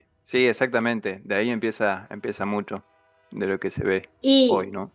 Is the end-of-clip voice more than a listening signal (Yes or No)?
Yes